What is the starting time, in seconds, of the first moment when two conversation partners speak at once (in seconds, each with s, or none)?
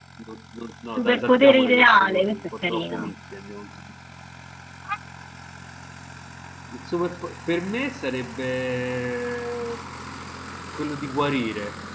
0.9 s